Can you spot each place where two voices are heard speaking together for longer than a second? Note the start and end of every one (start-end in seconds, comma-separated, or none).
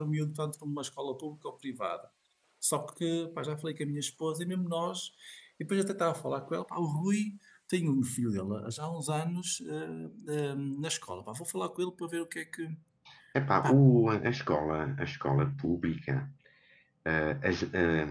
none